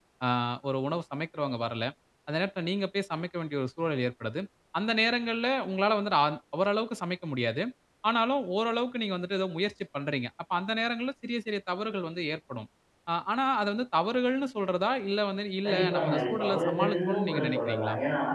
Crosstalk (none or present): present